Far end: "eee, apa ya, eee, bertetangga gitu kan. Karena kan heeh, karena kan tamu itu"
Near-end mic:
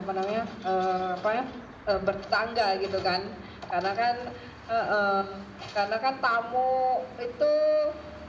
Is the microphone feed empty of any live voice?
Yes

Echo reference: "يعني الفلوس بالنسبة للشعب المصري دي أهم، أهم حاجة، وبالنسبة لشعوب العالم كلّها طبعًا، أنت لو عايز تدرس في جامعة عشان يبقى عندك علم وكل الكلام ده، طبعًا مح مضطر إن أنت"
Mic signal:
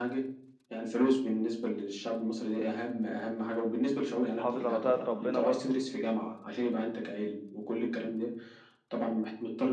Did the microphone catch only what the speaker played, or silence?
No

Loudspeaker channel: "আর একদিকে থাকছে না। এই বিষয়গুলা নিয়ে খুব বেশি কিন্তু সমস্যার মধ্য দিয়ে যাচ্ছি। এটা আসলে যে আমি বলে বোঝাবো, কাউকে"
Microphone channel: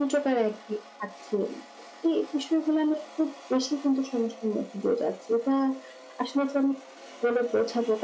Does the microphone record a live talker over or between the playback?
No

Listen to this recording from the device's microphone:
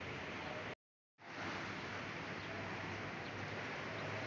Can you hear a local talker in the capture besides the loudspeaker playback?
No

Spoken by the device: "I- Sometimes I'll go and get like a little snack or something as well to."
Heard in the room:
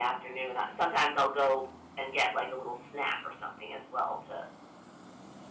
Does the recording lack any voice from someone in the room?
Yes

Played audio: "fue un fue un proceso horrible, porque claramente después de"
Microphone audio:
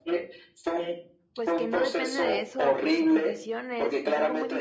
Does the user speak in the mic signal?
Yes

